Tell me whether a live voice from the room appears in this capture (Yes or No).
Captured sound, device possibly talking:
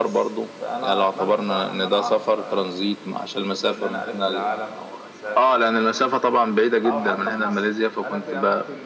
Yes